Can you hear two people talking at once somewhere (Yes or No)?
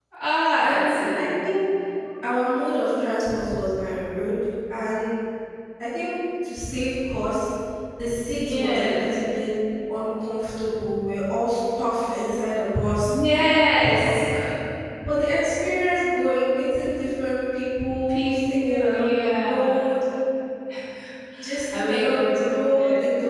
Yes